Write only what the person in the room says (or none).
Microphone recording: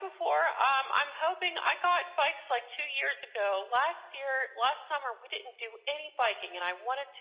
none